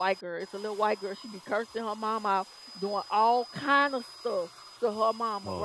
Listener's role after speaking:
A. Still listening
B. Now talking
A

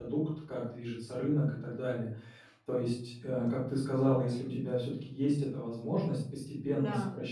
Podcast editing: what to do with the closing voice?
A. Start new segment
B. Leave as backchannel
B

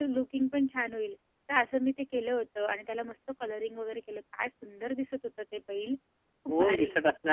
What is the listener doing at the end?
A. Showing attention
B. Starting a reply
B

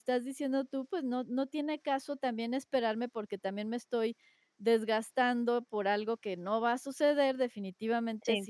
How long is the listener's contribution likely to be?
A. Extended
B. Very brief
B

